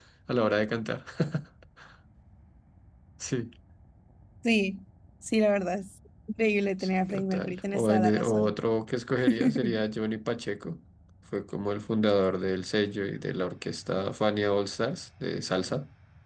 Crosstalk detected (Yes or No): Yes